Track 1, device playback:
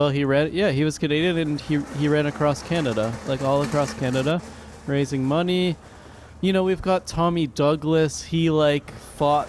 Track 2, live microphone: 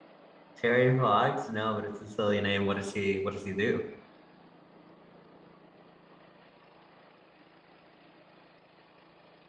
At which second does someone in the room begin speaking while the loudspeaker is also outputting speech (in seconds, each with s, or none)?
0.6 s